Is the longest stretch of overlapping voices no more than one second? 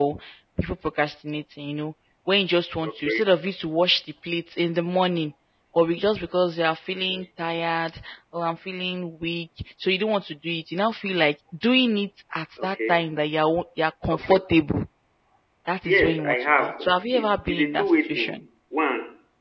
No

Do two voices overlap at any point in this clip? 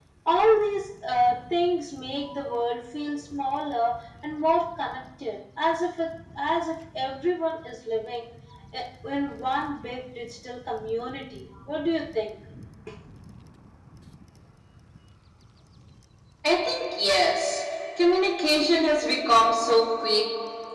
No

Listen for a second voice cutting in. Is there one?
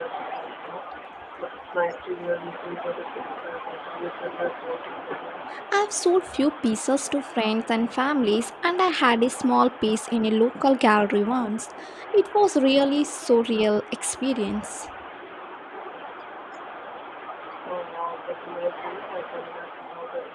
No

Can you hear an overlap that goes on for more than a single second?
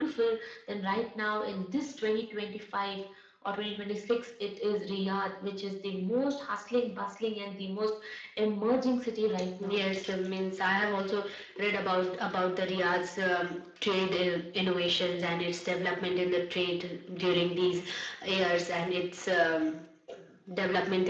No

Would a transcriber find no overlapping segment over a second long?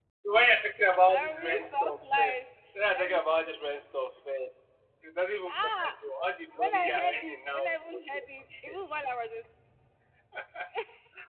No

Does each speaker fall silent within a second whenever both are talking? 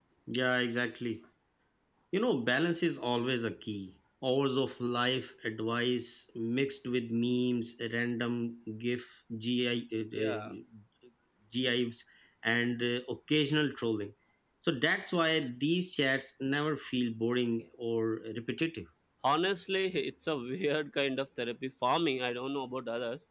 Yes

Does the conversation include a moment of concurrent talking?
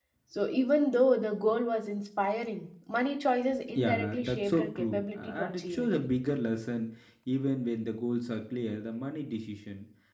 Yes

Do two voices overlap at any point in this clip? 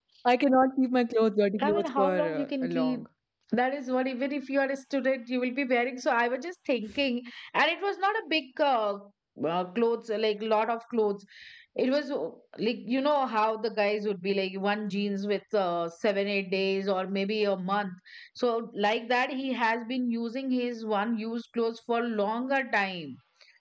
Yes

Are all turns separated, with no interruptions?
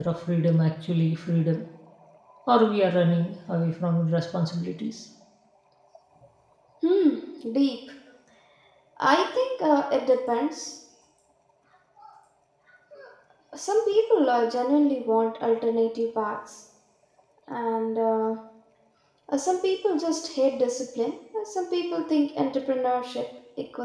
Yes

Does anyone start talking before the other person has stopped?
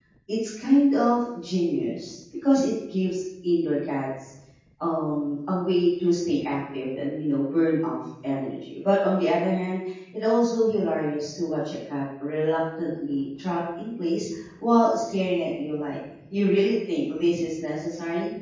No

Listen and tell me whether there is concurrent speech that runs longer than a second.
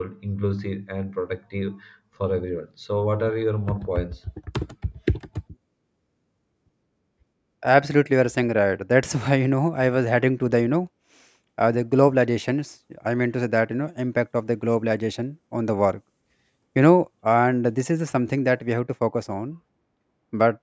No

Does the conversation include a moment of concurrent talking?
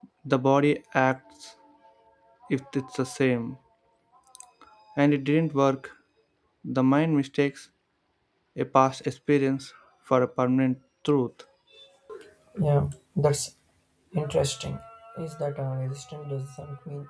No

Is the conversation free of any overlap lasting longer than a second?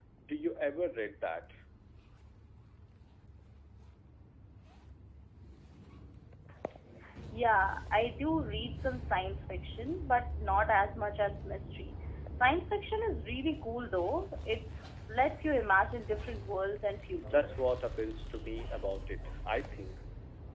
Yes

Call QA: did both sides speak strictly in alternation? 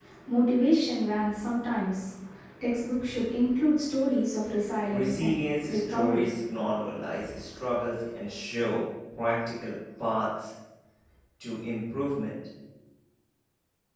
No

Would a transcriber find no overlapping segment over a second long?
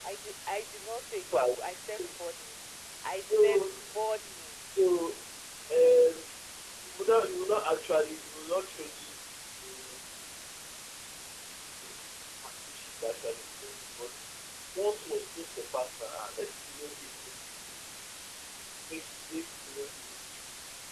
Yes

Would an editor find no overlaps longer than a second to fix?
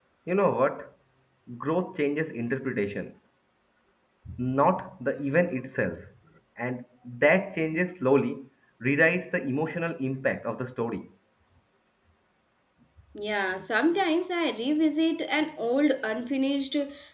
Yes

